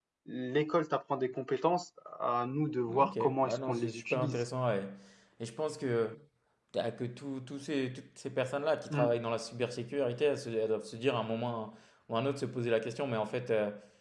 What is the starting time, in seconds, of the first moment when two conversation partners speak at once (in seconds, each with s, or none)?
2.9 s